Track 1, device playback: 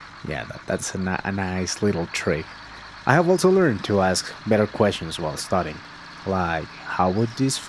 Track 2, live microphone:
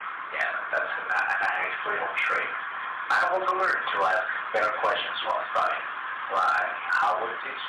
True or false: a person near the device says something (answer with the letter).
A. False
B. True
A